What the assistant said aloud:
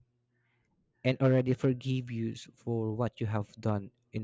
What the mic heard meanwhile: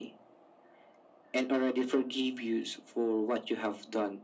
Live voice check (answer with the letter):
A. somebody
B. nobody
B